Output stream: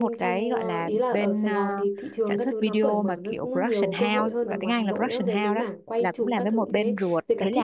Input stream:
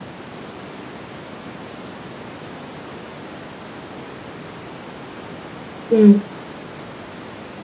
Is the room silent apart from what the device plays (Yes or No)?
No